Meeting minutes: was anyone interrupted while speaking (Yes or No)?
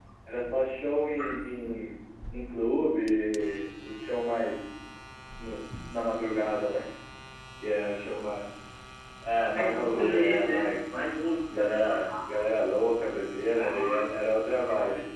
Yes